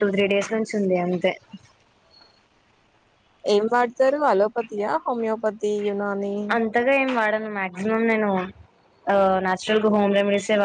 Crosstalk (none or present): none